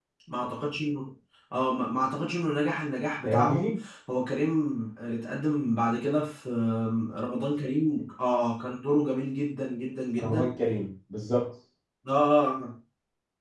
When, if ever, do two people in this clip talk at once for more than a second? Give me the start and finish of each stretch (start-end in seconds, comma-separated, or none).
none